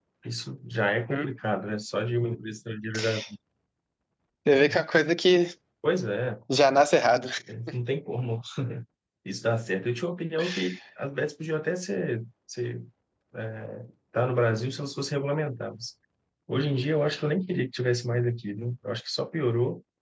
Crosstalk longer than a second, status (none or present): none